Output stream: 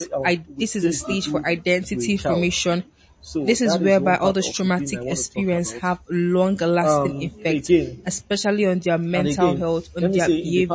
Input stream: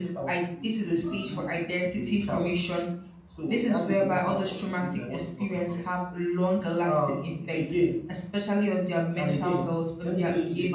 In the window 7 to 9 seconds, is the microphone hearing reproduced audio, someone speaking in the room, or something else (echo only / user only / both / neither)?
echo only